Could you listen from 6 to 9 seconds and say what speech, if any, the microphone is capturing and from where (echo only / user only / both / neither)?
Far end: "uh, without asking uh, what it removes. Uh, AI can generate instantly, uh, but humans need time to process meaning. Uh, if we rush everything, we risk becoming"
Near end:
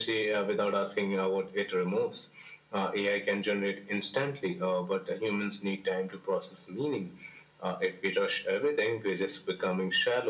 echo only